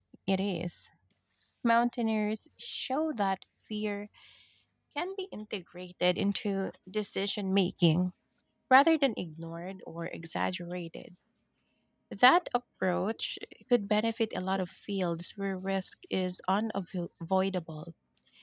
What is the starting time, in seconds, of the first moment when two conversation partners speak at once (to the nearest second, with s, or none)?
none